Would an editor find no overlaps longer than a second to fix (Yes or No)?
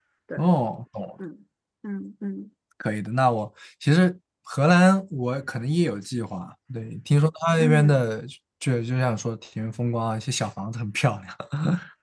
Yes